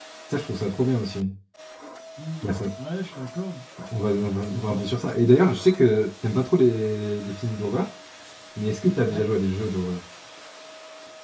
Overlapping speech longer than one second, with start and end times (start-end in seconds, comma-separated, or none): none